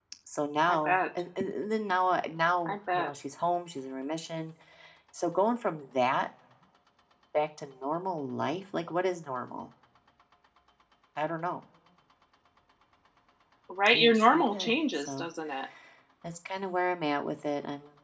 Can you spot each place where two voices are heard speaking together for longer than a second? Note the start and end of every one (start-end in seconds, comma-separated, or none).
13.9-15.3